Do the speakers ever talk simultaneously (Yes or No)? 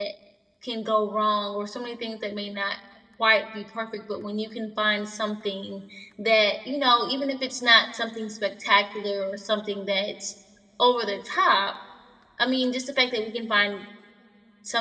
No